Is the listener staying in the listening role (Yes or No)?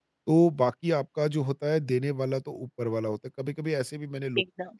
Yes